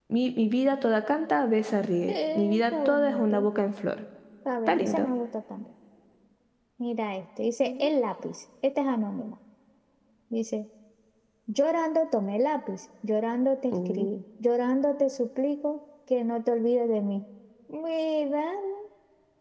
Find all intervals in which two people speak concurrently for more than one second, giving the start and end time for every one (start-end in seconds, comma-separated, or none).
2.1-3.5